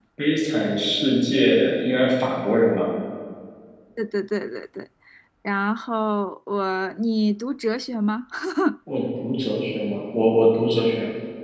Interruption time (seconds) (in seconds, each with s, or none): none